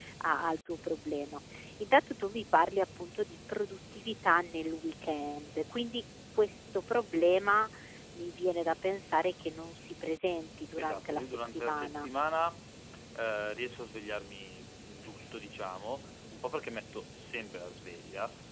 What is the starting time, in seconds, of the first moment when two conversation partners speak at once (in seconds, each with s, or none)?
10.8 s